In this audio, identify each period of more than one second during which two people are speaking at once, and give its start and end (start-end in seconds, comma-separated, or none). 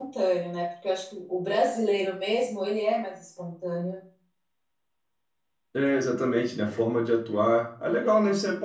none